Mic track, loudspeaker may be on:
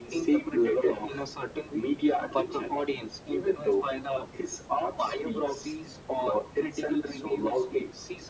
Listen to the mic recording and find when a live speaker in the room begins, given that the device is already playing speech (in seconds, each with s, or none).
none